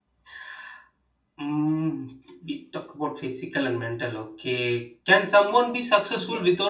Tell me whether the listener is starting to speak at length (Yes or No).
No